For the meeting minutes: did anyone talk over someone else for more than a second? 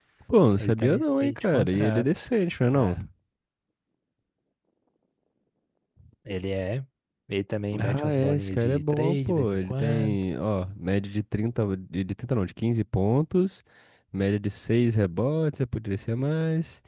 Yes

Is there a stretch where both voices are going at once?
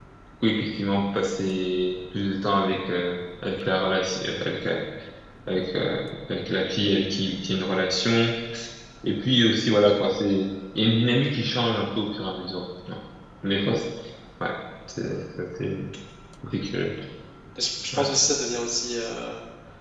No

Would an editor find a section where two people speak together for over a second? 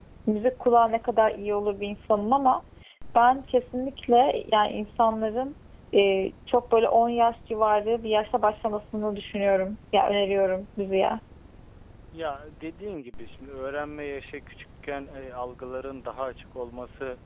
No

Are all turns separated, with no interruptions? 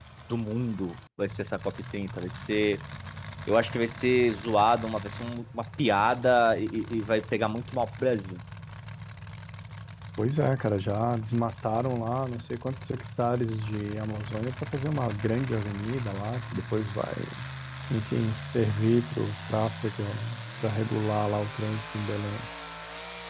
Yes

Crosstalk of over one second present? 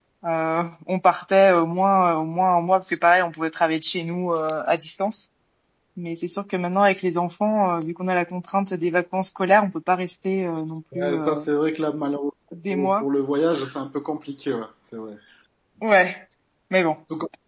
No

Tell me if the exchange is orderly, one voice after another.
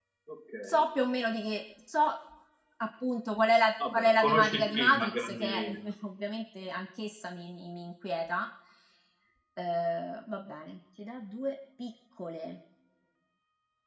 No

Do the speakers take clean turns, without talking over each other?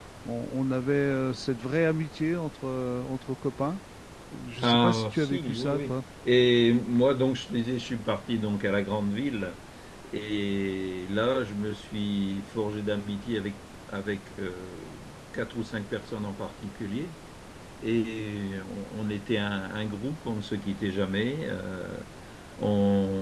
No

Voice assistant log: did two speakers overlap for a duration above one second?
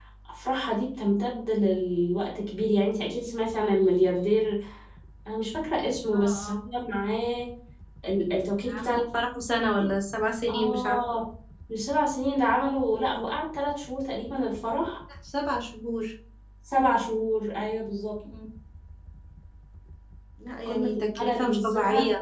Yes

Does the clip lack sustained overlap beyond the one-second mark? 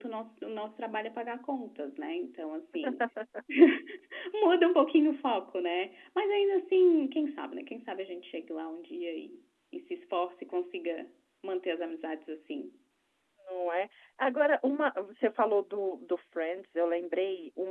Yes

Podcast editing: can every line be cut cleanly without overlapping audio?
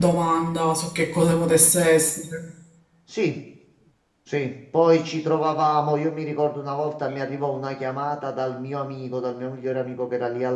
Yes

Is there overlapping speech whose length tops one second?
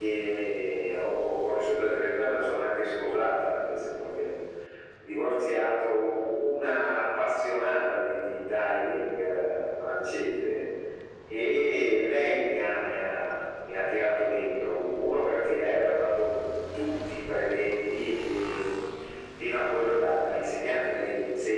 No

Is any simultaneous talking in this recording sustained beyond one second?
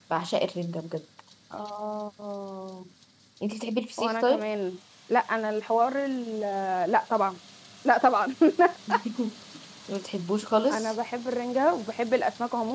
No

